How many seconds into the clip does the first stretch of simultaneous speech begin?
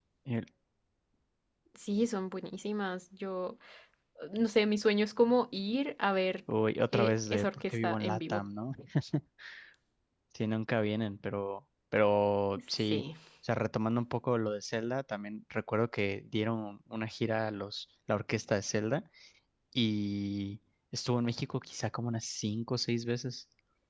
6.9 s

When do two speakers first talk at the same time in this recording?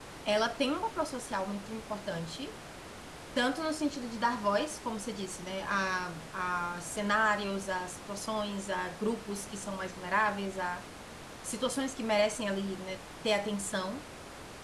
none

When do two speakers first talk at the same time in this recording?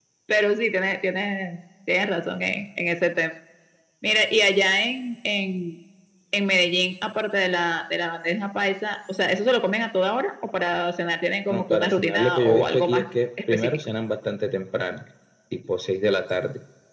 11.5 s

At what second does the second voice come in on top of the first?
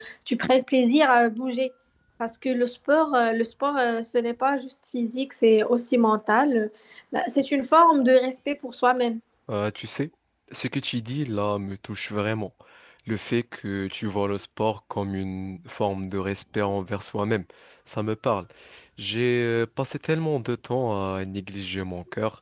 none

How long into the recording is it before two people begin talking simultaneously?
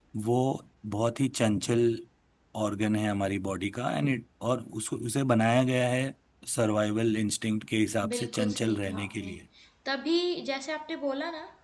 8.0 s

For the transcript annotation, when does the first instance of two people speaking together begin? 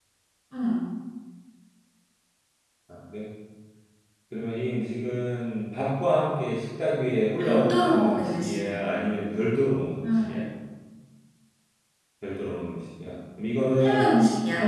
7.4 s

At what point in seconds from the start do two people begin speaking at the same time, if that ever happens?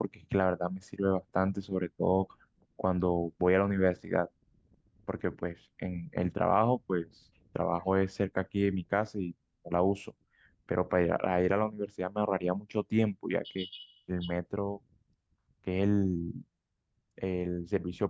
none

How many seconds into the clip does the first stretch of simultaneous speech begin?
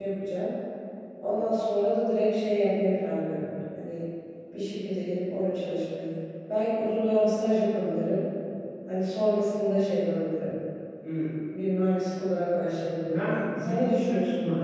13.1 s

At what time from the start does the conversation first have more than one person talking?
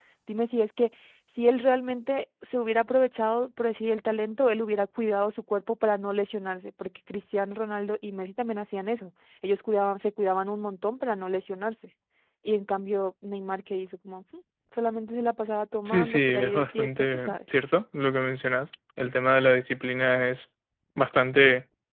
15.8 s

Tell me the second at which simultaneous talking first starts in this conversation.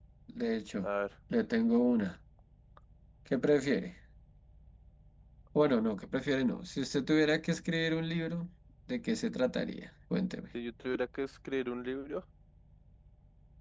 none

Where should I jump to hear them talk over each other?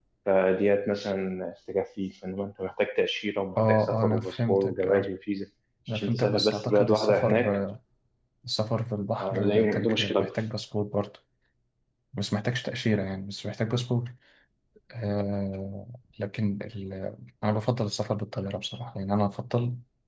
3.6 s

